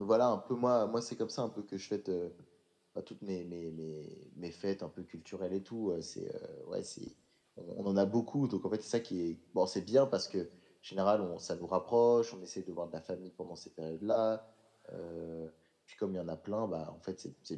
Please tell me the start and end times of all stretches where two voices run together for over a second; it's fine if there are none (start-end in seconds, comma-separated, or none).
none